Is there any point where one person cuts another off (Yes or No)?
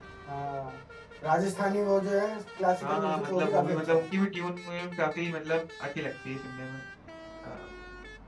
Yes